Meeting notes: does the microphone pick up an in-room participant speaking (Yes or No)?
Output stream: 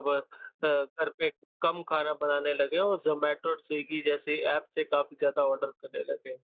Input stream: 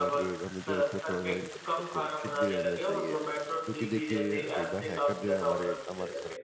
Yes